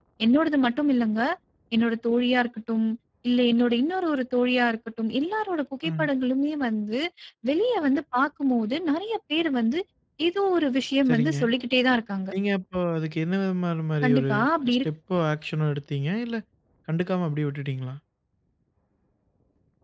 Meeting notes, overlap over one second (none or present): none